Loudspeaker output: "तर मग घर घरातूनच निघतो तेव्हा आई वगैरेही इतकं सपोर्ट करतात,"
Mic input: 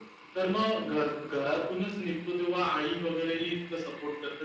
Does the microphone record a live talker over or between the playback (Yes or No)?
No